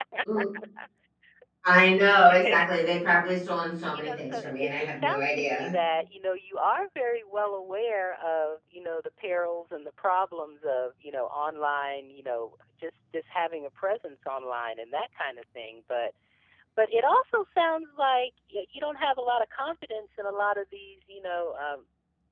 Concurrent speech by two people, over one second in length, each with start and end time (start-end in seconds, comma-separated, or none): 3.9-5.8